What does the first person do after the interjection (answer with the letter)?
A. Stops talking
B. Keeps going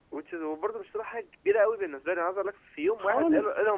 B